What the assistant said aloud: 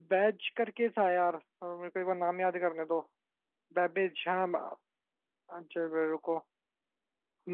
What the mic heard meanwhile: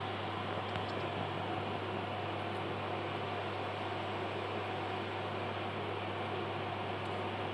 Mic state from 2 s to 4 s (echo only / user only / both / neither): neither